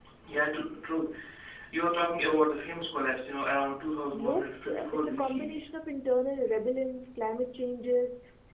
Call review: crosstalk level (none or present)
present